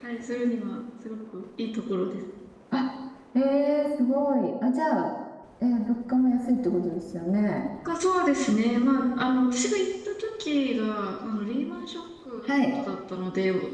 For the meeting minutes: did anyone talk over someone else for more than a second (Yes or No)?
No